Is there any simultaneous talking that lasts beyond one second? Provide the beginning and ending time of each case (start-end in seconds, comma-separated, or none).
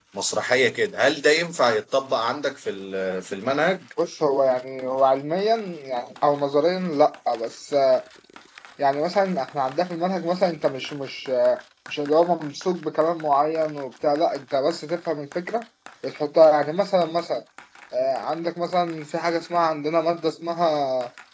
none